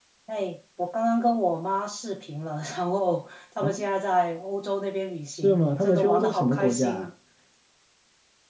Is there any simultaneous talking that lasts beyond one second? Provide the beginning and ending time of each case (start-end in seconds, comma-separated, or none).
5.3-7.1